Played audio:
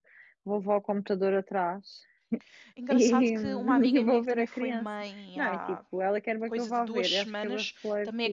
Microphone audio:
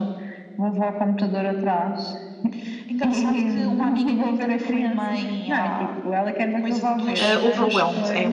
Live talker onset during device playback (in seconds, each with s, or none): 7.2 s